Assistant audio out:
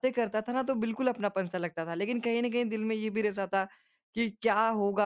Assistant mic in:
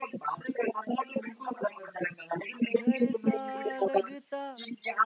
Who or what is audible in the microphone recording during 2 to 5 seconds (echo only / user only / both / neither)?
both